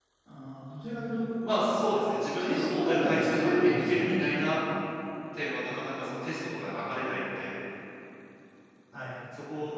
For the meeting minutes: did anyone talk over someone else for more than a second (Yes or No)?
Yes